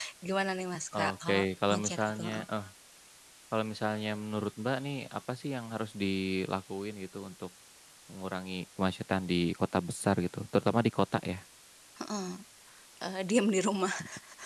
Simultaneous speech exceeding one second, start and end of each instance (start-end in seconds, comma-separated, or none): 0.9-2.4